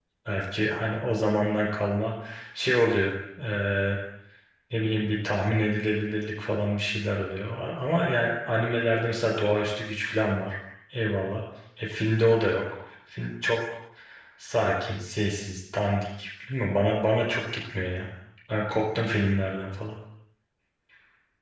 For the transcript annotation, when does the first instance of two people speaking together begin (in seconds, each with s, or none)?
none